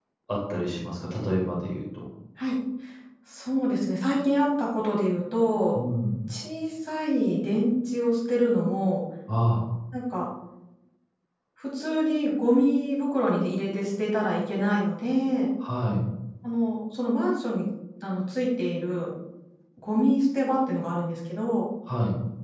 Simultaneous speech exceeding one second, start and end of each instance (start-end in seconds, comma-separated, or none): none